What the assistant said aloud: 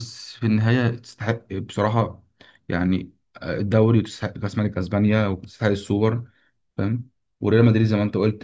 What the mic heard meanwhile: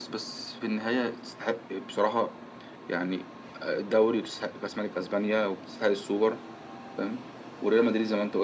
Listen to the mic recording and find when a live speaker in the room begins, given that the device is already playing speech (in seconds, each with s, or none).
none